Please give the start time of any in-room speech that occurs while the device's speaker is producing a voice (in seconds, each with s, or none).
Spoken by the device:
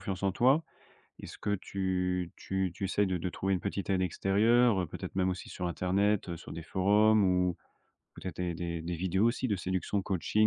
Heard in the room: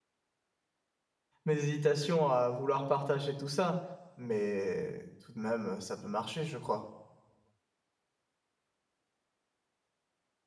1.5 s